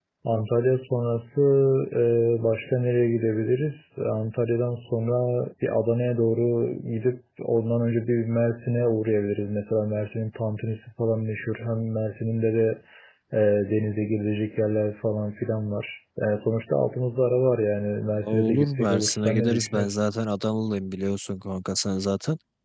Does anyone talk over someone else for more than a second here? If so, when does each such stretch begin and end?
18.2-19.9

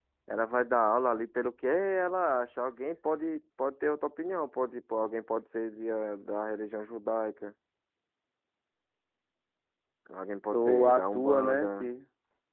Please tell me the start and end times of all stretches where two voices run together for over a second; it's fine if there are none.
10.5-11.9

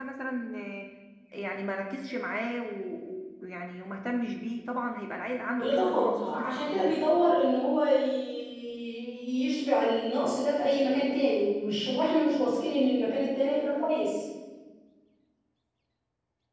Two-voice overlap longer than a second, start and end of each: 5.5-7.0

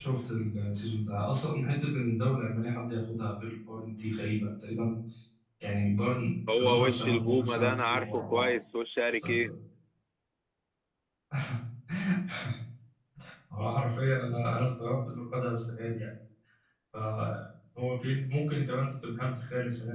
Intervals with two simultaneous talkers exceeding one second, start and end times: 6.6-8.5

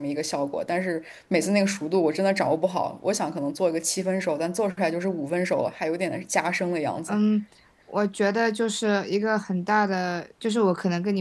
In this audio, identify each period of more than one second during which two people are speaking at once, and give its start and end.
none

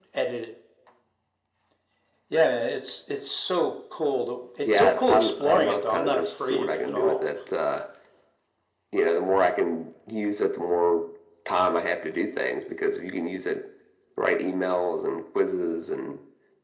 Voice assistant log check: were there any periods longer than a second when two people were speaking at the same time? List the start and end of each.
4.6-7.3

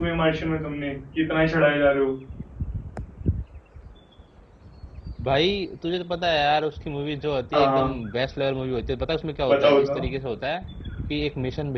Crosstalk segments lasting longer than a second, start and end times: none

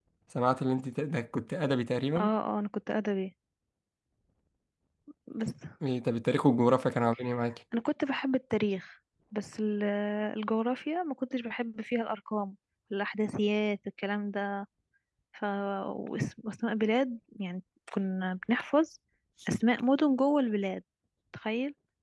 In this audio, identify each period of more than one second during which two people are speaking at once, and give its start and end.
none

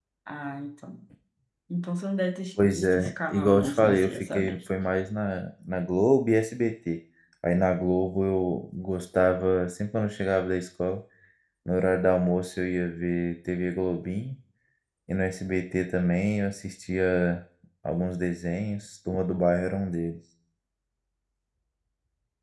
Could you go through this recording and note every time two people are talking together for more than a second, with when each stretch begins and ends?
2.6-4.6

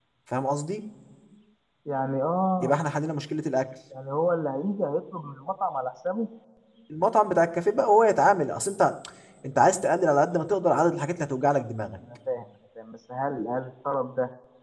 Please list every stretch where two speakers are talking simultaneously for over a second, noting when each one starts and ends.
none

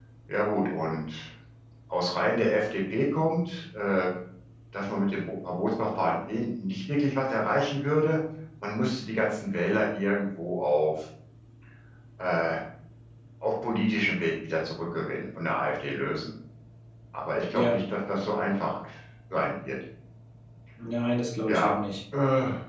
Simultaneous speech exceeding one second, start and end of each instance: none

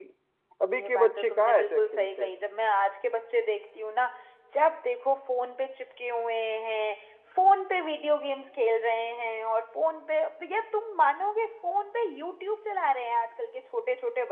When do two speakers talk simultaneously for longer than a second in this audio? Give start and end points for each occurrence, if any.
0.7-2.3

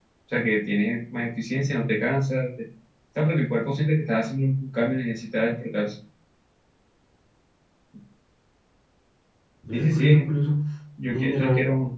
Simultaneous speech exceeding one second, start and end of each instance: none

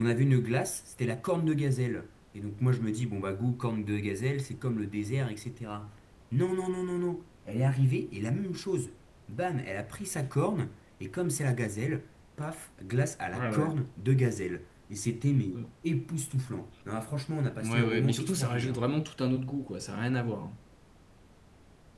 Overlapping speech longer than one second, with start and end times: 17.6-18.8

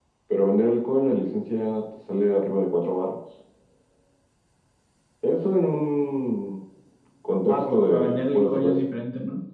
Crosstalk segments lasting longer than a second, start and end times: 7.5-8.9

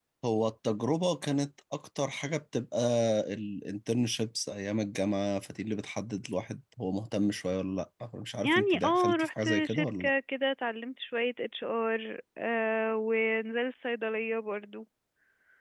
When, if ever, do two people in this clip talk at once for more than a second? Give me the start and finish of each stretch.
8.4-10.1

